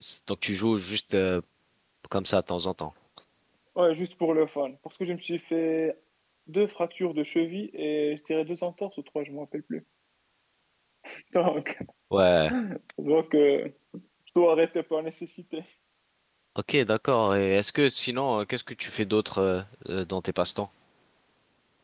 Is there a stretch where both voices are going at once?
No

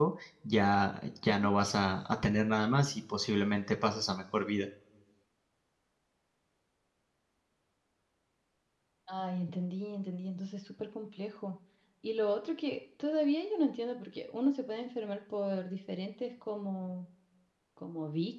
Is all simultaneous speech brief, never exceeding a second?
Yes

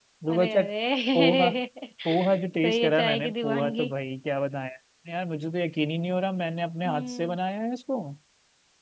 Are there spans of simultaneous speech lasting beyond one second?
Yes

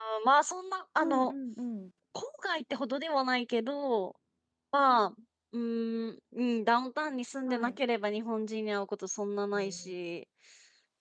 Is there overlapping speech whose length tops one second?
No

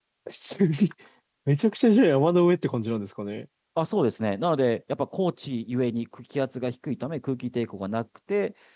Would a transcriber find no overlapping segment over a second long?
Yes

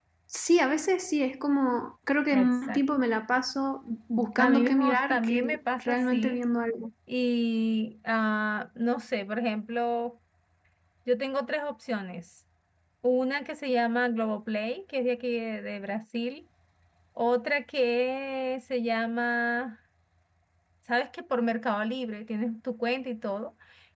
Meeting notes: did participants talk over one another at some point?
Yes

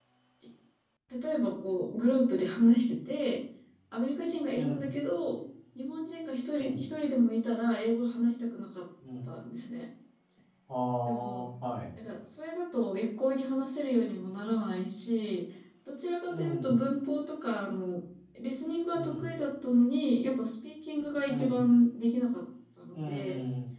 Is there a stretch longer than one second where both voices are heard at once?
No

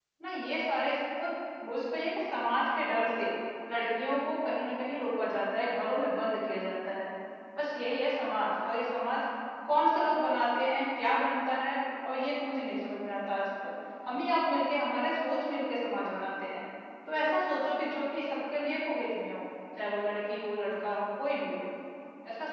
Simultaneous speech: No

